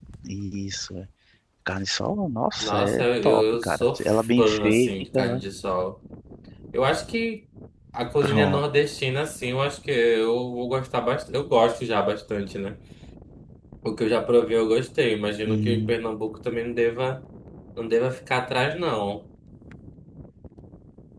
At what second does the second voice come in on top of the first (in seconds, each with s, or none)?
2.6 s